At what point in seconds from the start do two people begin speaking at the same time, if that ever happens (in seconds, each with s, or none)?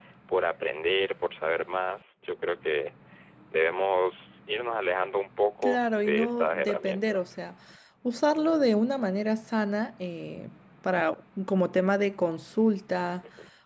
5.6 s